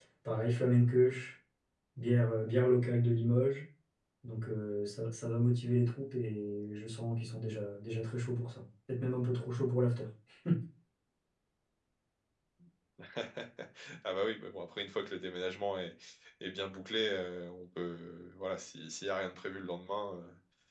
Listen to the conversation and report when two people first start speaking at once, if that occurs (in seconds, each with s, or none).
none